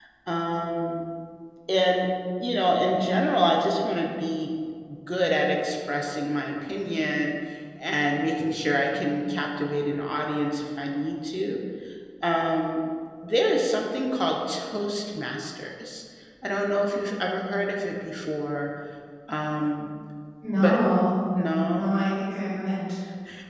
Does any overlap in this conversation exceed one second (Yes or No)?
No